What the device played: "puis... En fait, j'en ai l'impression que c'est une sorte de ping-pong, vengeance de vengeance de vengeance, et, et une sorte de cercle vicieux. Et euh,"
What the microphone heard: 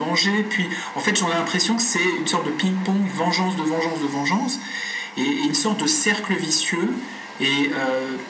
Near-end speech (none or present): none